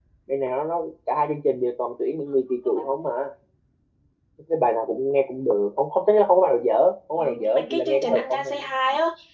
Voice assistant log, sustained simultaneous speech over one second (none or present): present